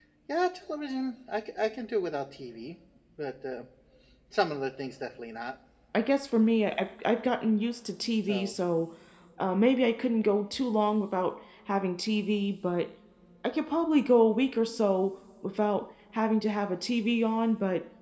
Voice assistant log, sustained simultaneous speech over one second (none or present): none